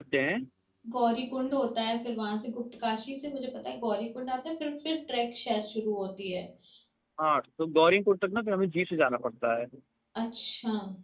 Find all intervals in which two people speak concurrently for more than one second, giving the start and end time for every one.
none

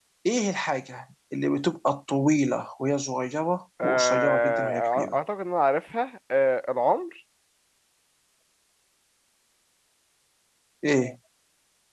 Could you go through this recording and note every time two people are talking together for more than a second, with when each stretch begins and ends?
3.8-5.2

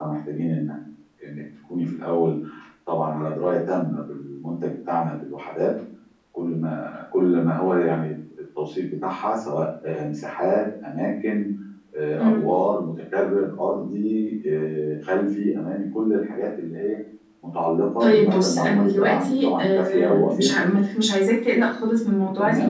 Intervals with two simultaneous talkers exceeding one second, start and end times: 18.0-20.5

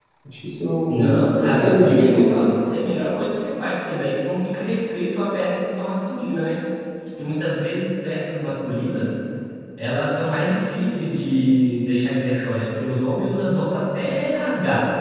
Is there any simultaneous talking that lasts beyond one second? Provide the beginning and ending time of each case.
0.9-2.5

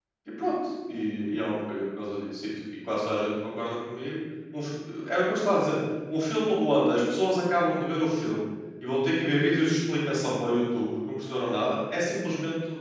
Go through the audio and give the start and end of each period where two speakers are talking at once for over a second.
none

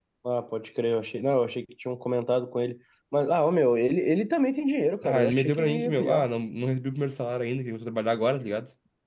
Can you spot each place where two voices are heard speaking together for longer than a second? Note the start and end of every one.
5.0-6.2

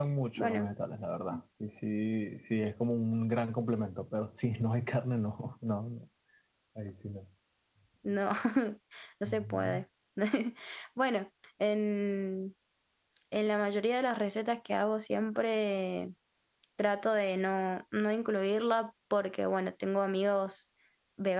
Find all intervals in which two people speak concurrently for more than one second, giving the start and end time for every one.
none

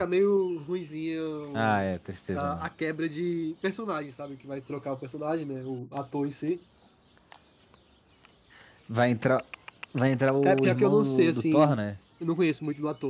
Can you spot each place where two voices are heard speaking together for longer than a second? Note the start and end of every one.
10.4-11.8

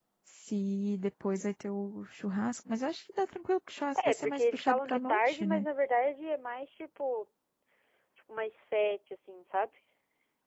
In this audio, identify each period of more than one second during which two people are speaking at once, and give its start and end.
4.0-5.7

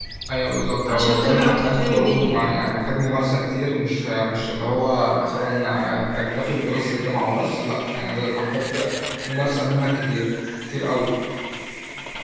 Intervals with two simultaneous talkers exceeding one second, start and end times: 0.9-2.6

